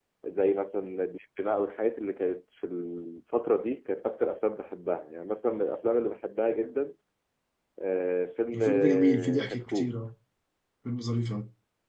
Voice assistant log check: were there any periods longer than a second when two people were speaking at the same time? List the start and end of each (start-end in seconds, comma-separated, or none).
8.5-9.9